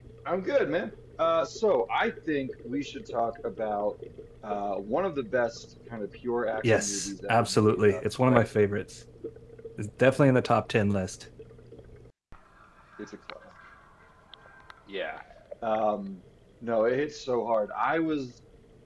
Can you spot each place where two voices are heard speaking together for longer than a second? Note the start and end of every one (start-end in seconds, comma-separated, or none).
6.6-8.6